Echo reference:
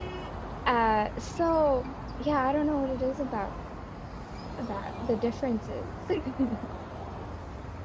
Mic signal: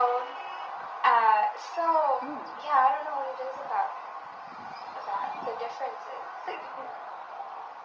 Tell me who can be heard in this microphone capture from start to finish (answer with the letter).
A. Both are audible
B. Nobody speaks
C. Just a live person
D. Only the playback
A